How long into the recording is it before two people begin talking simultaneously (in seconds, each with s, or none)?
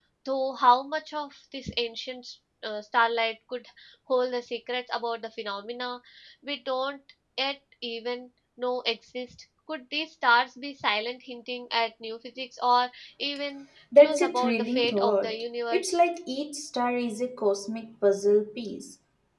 13.9 s